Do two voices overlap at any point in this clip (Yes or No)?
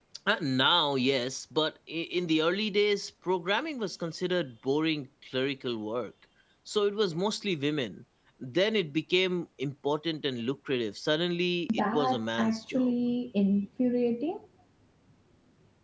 Yes